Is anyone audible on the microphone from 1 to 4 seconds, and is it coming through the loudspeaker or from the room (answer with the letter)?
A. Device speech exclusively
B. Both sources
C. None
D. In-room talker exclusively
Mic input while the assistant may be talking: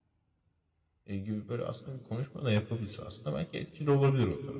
D